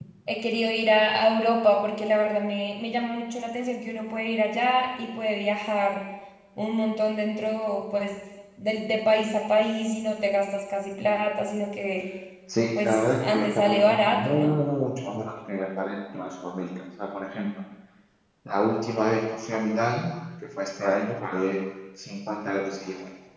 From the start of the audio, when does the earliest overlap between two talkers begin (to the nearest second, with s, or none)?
13 s